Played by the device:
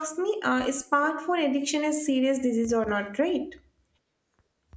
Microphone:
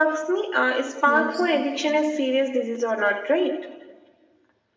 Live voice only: yes,

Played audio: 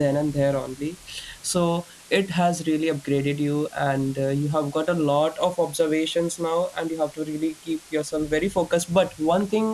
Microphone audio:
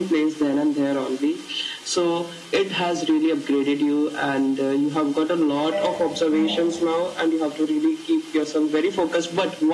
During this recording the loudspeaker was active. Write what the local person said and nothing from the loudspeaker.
correct, correct.

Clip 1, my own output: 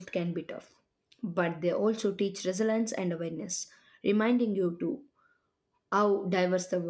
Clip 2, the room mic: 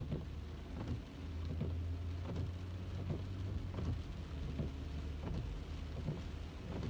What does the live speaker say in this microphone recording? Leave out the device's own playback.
none

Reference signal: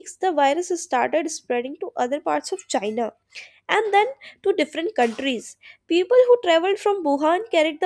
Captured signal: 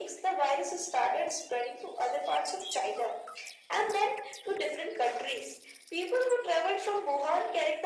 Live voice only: none

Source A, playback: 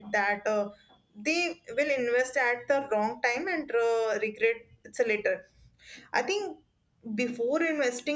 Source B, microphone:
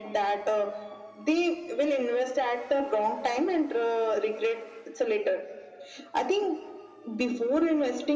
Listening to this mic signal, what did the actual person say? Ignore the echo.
none

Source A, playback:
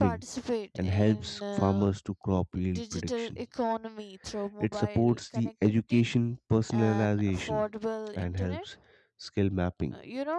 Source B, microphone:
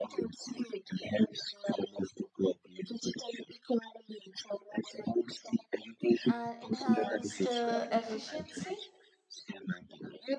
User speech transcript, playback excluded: and enhanced uh, efficiency

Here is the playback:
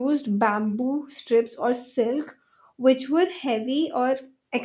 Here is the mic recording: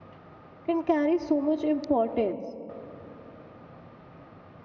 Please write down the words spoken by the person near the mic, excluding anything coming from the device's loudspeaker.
can carry so much importance.

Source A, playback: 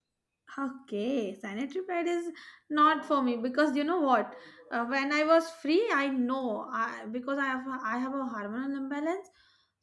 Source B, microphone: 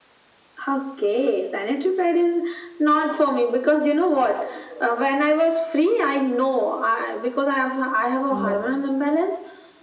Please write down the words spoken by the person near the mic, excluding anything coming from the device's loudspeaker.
No.

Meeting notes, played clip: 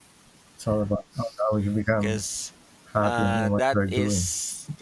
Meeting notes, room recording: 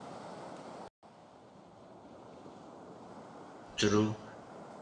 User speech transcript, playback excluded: true.

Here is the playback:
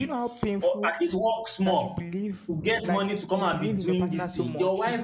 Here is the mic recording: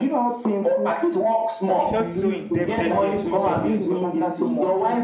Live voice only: He felt so indebted. Yes, so indebted.

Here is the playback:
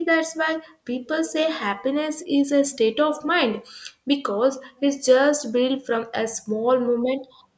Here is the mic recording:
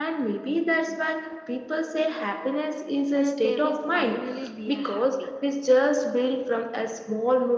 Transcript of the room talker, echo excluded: and they will finally be a happy.

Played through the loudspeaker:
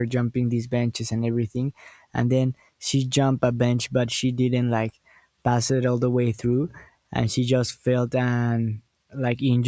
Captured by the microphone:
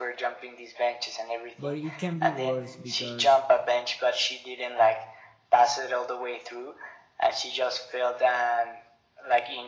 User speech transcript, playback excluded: but it can be worse because

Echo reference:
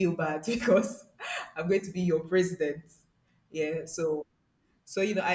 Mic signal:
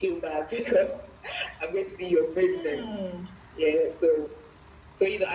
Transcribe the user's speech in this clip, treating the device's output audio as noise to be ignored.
Hmm.

